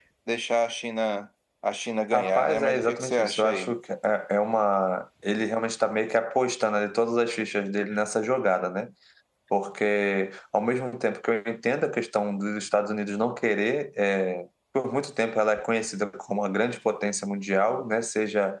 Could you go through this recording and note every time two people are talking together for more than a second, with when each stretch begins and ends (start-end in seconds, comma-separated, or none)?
2.1-3.7